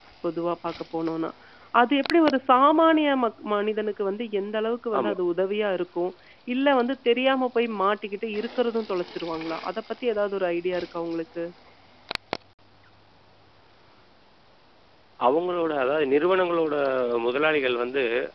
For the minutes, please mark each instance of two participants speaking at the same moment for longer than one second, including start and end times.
none

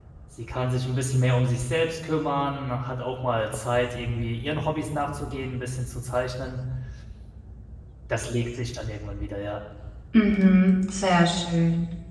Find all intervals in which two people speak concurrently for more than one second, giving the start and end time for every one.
none

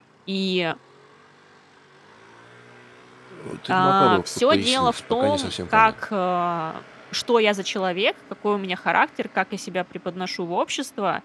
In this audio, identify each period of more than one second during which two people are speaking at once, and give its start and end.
3.7-6.0

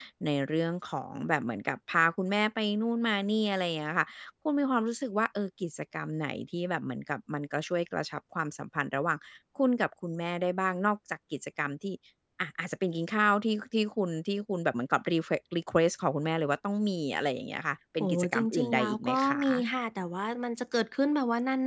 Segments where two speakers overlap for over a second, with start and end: 18.0-19.6

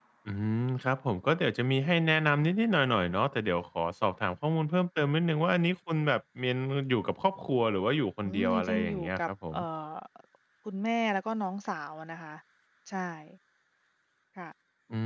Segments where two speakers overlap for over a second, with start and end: 8.2-9.6

